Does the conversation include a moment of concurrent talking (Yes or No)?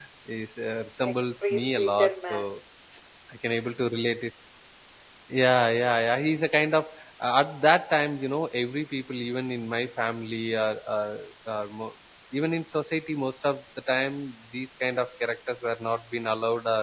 Yes